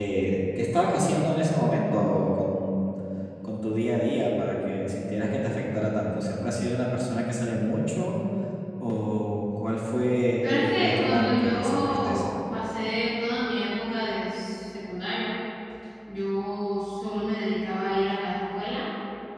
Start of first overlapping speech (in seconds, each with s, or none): 10.4 s